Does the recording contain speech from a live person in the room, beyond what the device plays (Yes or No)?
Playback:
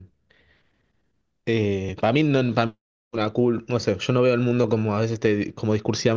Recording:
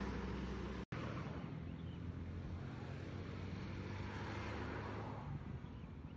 No